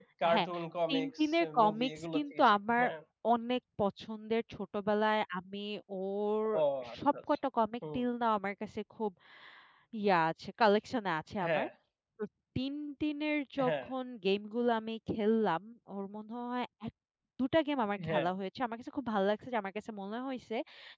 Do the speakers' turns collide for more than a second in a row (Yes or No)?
Yes